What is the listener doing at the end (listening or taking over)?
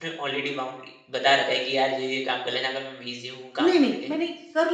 taking over